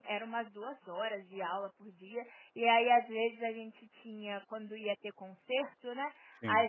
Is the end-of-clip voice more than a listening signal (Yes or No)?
No